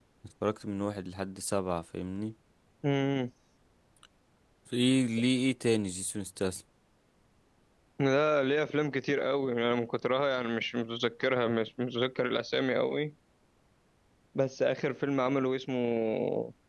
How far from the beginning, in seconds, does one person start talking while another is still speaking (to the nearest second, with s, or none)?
none